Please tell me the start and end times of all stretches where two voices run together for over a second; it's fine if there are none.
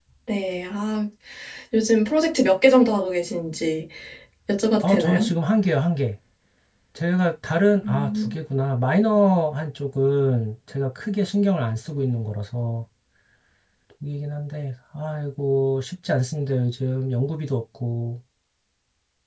none

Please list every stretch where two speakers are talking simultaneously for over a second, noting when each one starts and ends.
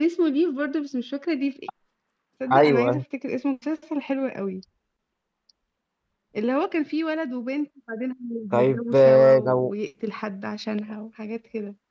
8.5-9.7

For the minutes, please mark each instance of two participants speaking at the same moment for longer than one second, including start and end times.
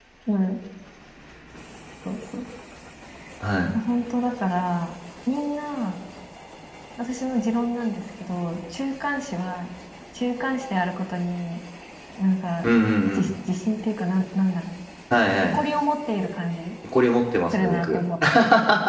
none

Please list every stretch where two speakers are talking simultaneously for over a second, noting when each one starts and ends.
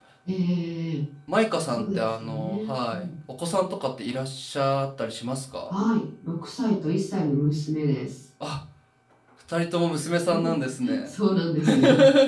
1.7-3.1

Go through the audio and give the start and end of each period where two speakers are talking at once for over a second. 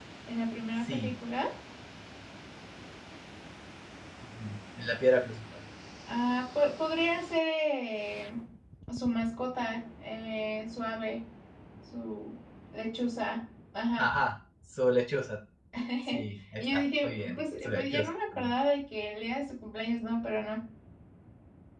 16.6-18.1

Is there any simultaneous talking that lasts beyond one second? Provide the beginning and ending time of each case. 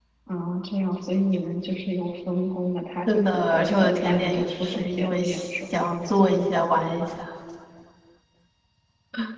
3.1-5.8

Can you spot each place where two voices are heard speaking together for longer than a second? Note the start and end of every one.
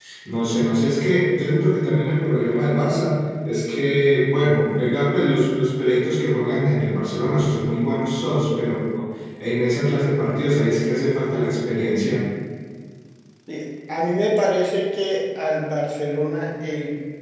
none

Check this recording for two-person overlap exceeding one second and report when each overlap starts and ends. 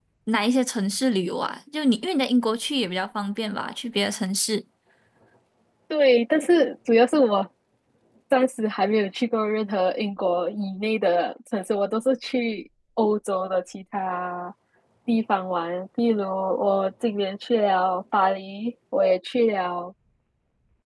none

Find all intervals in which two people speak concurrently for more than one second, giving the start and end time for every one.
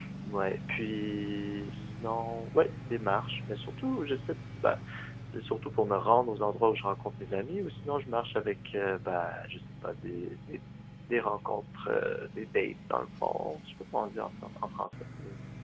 none

